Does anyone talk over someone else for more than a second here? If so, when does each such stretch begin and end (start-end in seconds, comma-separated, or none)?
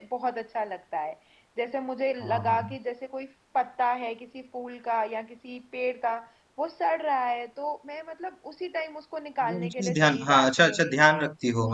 9.4-10.8